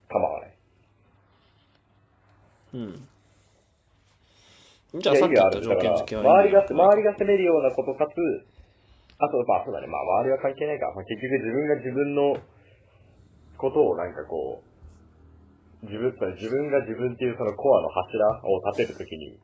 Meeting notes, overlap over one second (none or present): present